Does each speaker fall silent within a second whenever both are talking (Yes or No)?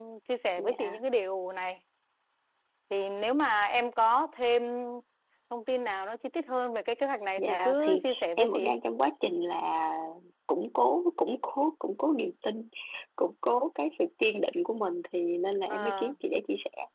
No